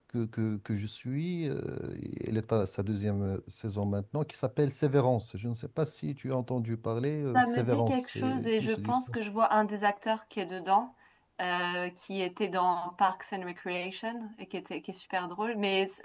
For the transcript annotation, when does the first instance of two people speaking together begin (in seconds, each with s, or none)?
7.3 s